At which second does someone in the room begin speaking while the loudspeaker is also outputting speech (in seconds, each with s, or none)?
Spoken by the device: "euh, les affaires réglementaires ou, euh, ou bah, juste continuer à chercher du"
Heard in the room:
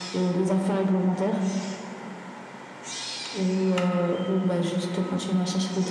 none